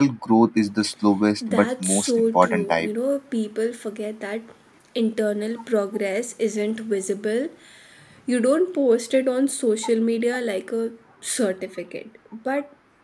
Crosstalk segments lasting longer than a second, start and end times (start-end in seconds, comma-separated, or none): 1.5-2.9